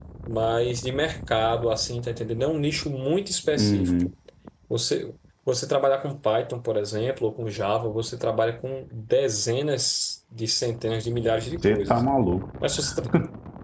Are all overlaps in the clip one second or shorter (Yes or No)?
Yes